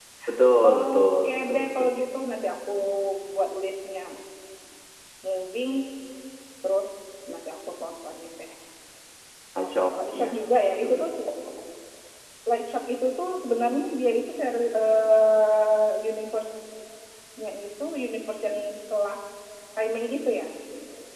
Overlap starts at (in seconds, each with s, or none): 0.7 s